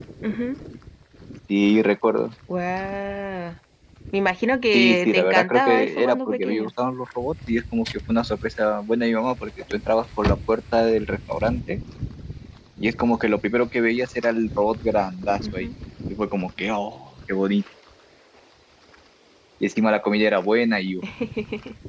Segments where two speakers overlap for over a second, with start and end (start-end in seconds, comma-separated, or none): 4.7-6.7